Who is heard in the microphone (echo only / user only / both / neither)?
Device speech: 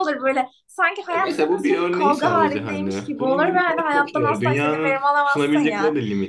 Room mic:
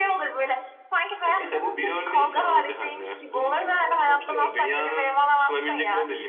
echo only